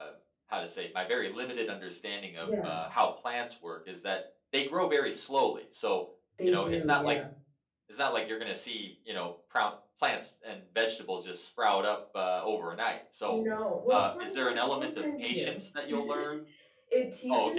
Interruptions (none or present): present